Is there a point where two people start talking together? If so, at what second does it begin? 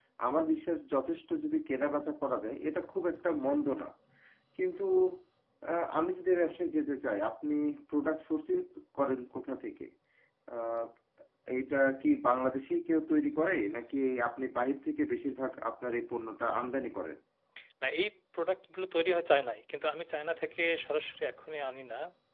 none

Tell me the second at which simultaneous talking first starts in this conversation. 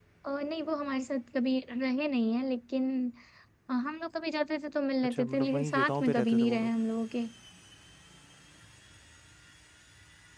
5.0 s

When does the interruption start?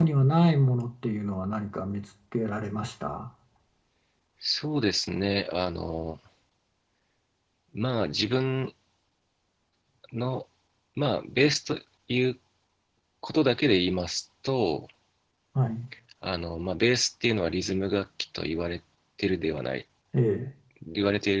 none

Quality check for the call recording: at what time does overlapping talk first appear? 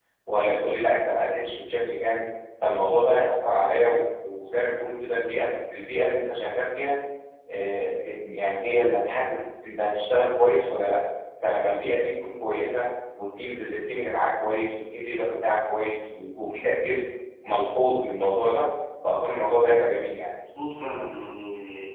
none

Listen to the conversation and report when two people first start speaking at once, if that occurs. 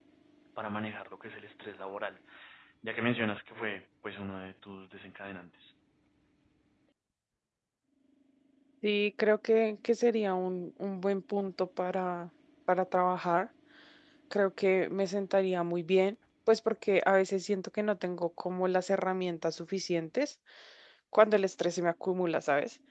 none

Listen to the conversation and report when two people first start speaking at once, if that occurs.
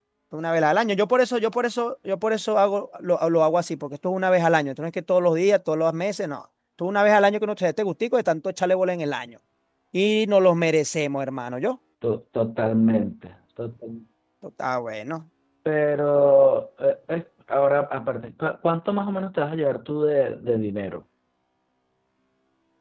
none

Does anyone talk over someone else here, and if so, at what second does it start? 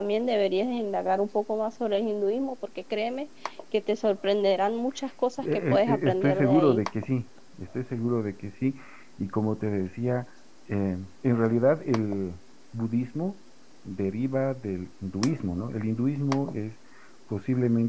5.4 s

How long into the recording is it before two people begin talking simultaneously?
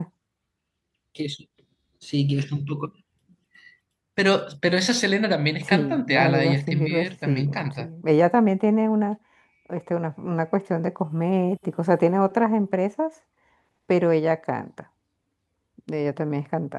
5.6 s

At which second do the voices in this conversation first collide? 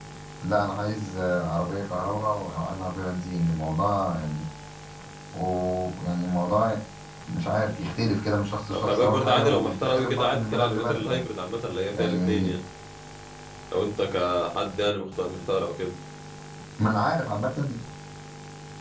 8.7 s

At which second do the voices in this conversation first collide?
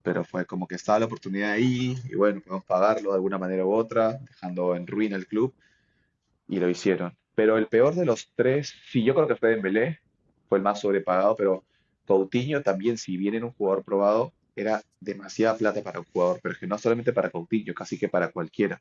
none

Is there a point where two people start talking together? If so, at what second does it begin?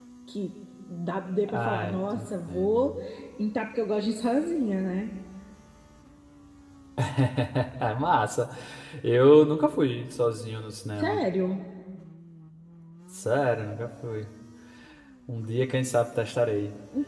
1.5 s

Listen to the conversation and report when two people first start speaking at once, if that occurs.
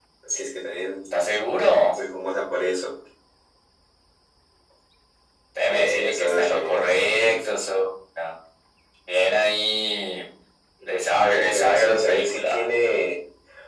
5.7 s

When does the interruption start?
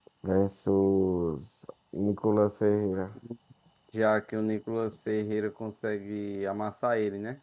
none

